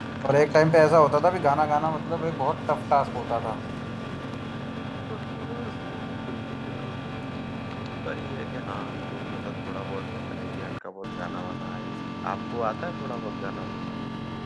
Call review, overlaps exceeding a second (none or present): none